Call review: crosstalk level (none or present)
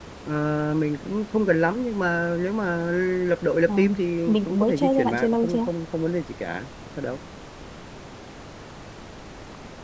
present